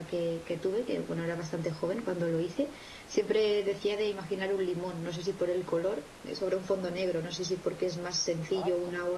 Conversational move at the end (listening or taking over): listening